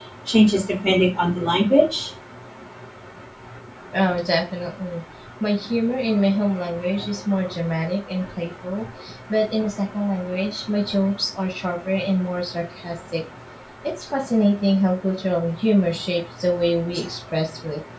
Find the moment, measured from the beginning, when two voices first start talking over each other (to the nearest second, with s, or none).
none